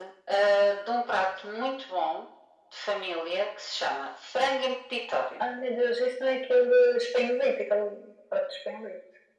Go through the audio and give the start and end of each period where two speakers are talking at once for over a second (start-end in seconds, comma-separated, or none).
none